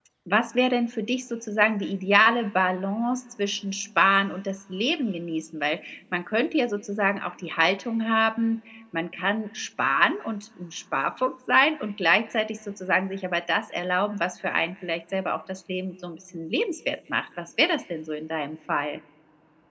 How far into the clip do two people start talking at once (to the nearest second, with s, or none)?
none